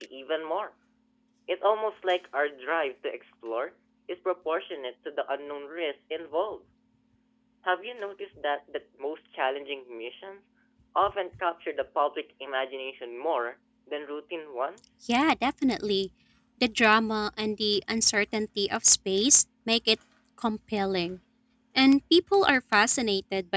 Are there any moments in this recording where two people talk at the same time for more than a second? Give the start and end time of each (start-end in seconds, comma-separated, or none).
none